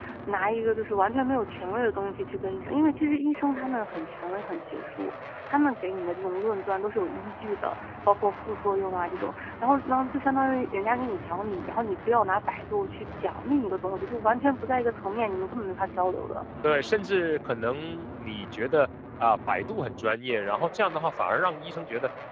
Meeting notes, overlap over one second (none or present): none